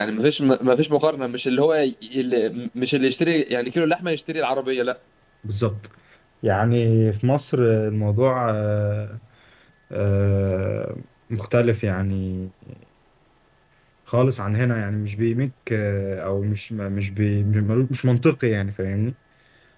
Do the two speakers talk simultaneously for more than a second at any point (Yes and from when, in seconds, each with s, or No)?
No